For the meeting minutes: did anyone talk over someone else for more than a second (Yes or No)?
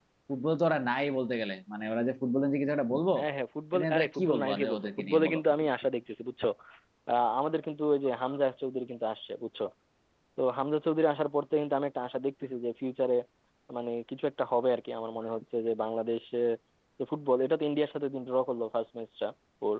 Yes